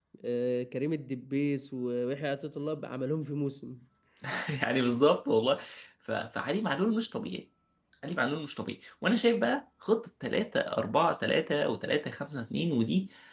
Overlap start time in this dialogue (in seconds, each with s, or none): none